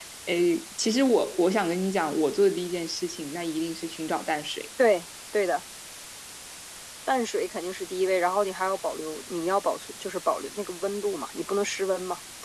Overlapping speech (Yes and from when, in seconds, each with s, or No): No